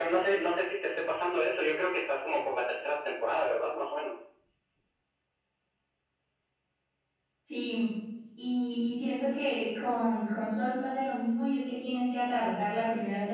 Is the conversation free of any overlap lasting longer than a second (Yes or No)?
Yes